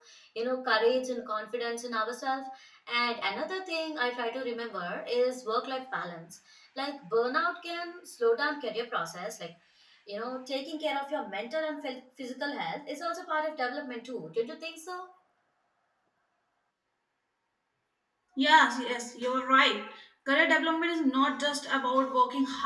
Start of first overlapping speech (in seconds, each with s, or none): none